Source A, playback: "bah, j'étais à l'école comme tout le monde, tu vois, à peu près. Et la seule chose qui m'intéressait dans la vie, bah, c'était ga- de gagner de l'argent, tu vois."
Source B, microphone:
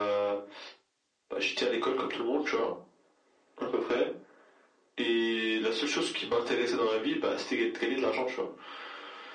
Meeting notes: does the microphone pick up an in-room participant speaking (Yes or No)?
No